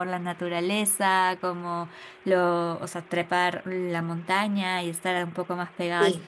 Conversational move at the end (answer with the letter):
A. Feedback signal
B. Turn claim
A